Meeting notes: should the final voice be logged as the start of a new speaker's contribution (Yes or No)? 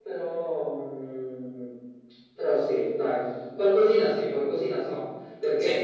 Yes